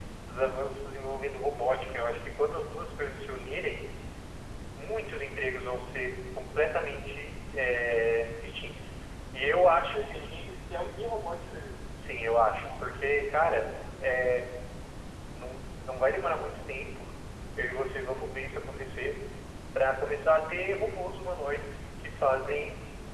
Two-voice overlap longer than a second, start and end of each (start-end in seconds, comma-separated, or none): none